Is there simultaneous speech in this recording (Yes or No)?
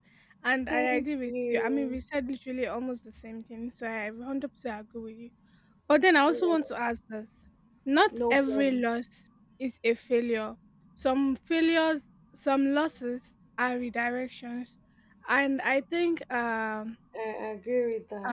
Yes